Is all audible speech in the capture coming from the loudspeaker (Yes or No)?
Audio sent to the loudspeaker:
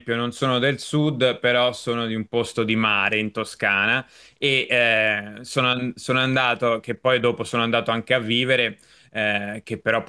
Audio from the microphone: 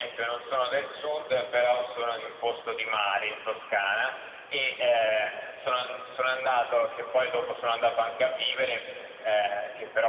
Yes